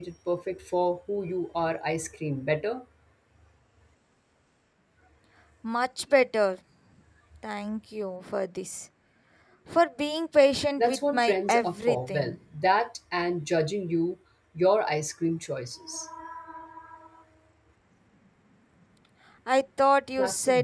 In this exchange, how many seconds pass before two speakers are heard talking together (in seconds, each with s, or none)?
10.8 s